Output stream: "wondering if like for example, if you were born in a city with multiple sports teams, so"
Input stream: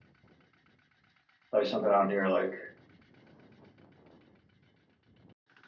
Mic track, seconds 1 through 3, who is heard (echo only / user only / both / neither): user only